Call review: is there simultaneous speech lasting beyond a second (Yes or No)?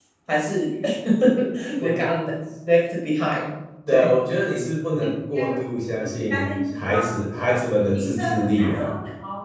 Yes